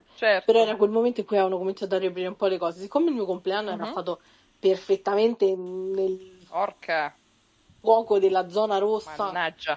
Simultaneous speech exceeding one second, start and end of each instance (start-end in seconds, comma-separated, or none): none